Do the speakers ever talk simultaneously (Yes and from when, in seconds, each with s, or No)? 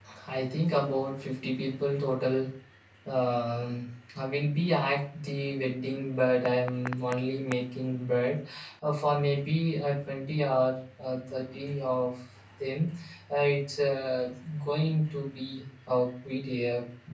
No